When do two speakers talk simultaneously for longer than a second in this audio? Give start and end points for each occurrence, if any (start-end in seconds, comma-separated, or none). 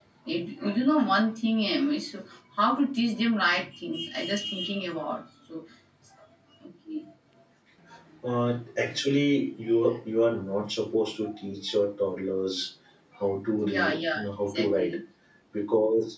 13.6-14.9